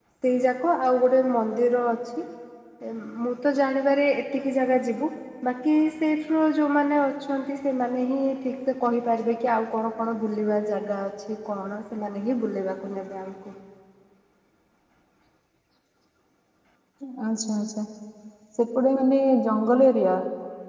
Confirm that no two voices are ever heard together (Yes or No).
Yes